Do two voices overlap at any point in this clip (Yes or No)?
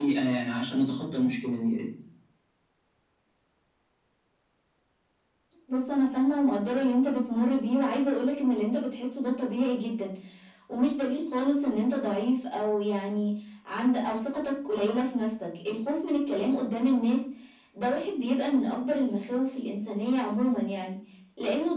No